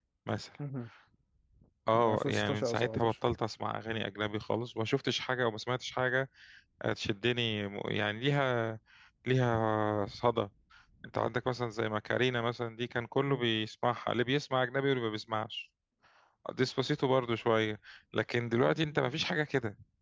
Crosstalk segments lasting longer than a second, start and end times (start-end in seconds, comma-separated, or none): 1.9-3.1